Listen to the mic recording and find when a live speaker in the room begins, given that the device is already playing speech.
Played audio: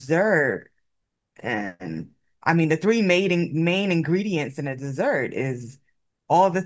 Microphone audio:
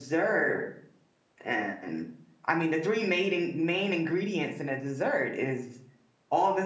none

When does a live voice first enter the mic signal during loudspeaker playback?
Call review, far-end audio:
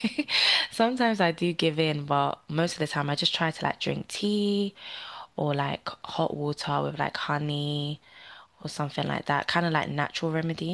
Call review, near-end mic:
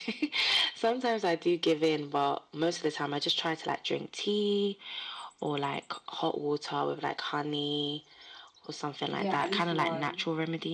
9.1 s

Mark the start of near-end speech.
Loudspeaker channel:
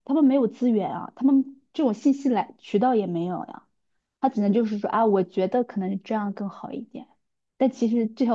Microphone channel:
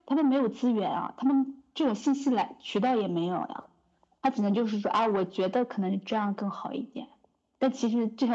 none

